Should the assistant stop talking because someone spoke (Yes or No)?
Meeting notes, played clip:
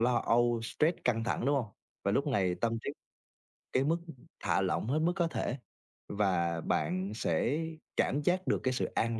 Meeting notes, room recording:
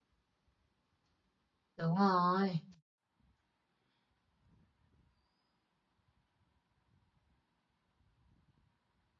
Yes